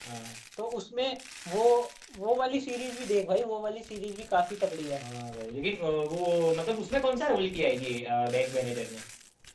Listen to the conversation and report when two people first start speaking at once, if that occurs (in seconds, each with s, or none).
none